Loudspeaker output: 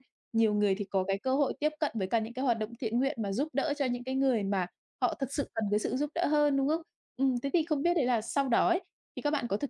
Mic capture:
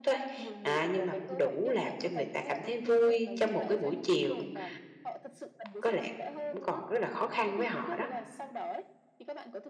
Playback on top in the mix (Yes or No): No